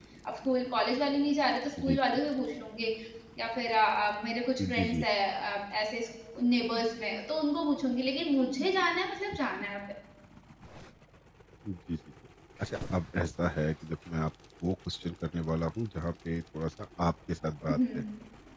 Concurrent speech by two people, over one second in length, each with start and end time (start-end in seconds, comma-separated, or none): none